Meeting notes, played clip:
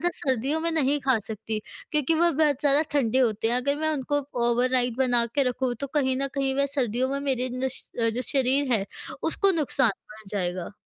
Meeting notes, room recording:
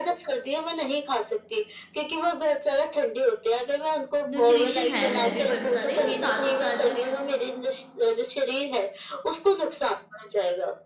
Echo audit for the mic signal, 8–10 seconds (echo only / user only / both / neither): echo only